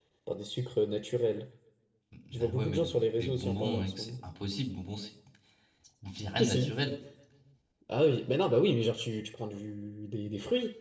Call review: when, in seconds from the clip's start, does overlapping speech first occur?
2 s

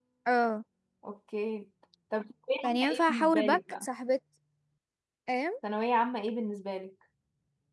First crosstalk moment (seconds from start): 3 s

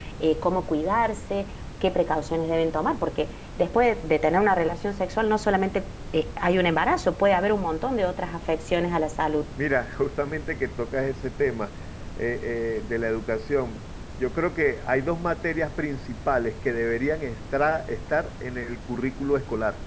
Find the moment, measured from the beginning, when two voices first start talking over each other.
none

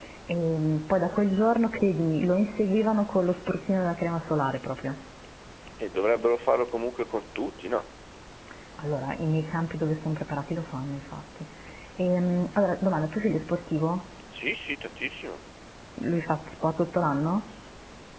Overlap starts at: none

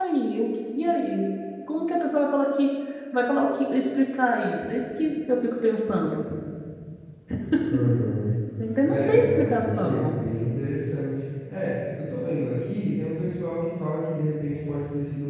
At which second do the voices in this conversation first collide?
9 s

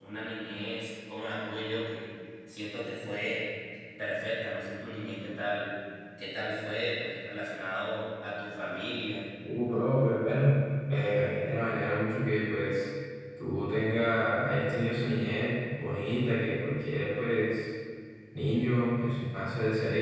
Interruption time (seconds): none

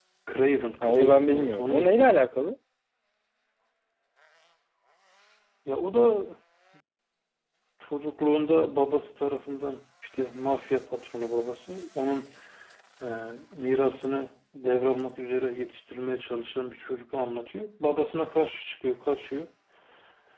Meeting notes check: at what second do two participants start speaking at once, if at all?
1 s

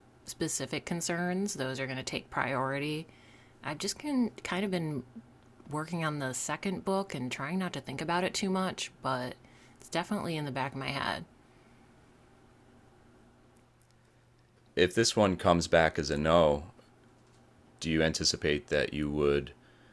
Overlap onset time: none

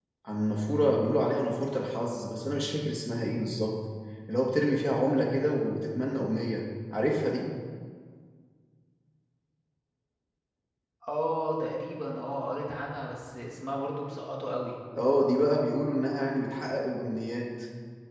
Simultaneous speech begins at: none

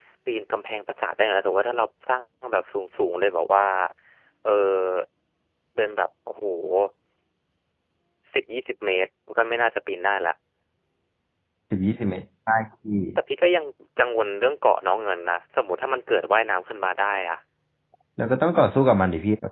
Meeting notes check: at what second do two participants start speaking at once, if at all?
none

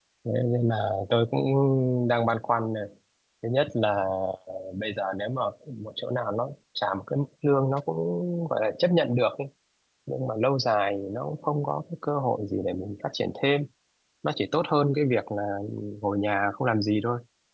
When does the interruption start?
none

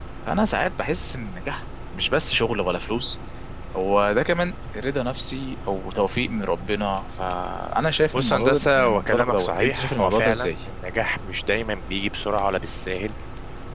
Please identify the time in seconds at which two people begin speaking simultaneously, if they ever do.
8 s

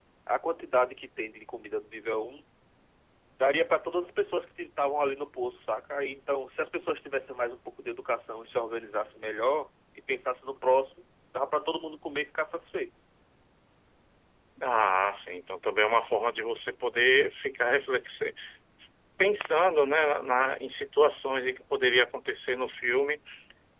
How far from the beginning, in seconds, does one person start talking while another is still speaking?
none

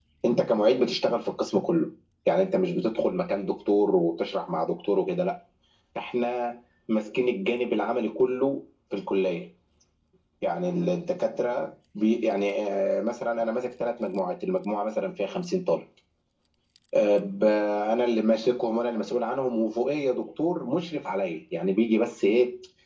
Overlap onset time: none

